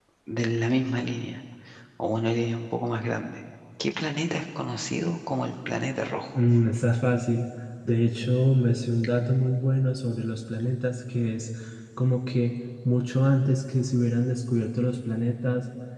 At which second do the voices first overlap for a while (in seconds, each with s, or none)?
none